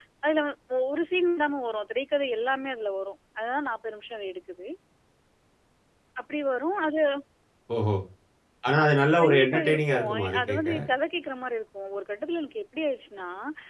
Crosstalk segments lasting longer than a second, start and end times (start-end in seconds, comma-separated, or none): 9.2-10.6